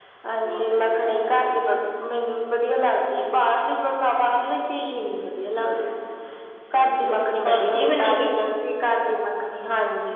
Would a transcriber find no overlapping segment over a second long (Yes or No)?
No